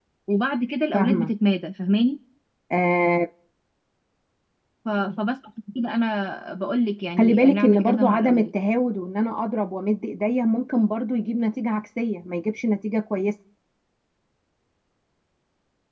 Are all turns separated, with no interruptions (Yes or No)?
No